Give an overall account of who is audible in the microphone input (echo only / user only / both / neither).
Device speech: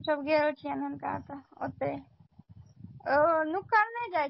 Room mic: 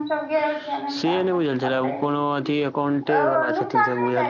both